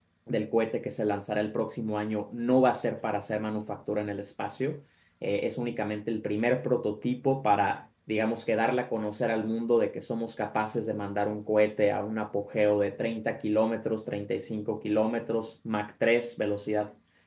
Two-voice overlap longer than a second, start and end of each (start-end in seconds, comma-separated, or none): none